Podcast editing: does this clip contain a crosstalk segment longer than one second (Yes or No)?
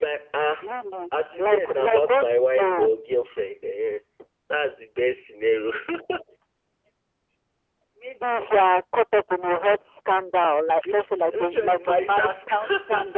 Yes